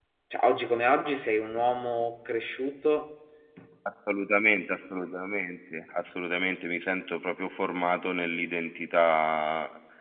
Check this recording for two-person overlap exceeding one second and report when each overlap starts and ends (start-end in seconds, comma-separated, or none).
none